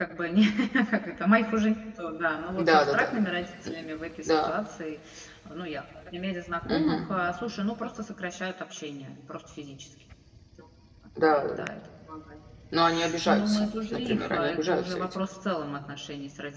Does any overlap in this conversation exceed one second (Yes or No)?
Yes